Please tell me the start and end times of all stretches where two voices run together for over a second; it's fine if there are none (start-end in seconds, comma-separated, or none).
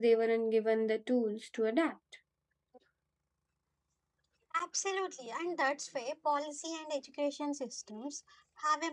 none